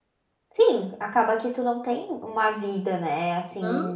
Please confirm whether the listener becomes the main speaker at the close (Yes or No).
No